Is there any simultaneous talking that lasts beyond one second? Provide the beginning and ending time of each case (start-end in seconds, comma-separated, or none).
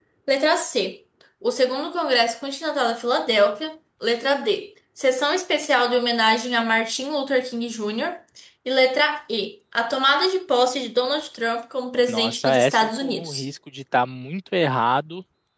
12.1-13.4